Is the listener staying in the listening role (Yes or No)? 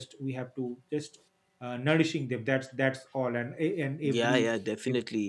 No